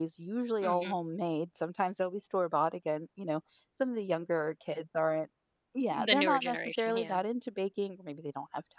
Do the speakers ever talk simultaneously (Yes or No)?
Yes